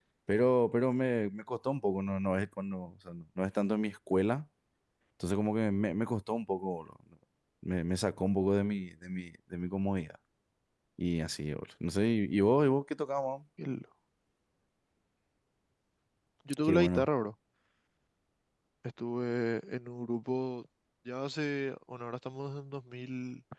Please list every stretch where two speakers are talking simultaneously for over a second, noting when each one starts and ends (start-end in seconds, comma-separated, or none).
none